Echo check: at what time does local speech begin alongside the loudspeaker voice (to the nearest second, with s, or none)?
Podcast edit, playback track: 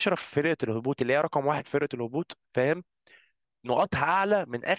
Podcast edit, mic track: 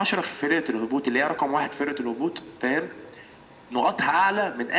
none